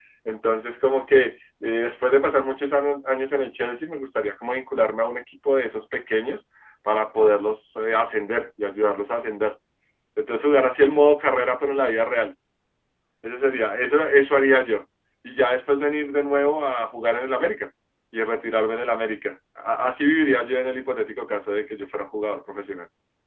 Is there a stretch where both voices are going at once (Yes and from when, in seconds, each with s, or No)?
No